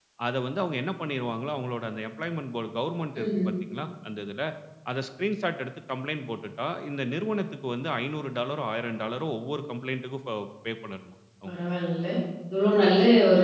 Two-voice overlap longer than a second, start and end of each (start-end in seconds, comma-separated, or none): none